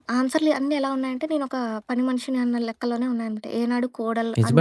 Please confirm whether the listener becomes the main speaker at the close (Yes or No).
Yes